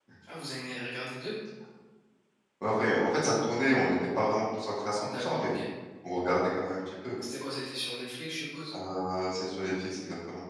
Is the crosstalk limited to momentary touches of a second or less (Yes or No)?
Yes